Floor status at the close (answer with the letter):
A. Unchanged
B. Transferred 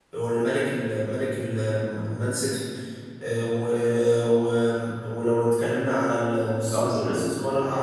A